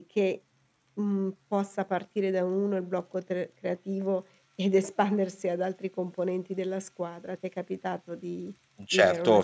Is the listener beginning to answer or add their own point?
Yes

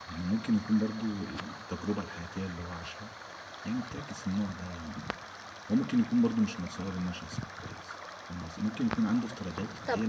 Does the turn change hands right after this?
No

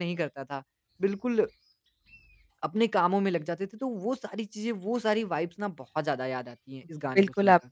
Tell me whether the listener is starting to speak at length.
Yes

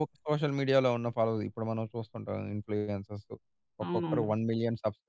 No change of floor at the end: Yes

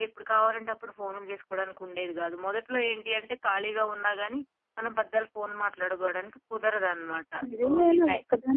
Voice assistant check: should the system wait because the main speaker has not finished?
No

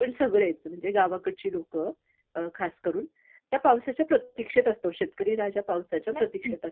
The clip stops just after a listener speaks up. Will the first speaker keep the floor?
Yes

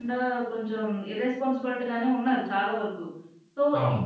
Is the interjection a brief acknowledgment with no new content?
Yes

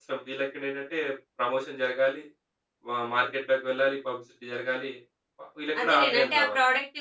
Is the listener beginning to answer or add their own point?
Yes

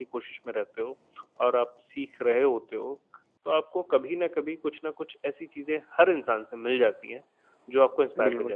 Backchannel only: Yes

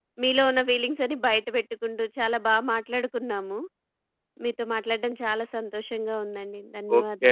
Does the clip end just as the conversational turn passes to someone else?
Yes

